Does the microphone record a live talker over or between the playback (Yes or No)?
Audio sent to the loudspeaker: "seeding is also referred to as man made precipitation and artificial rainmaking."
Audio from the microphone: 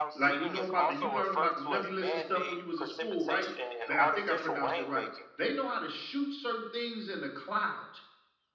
Yes